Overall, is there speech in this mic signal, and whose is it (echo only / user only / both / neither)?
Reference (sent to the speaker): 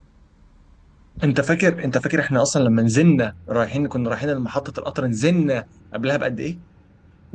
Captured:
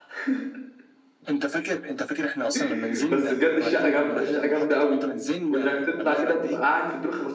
both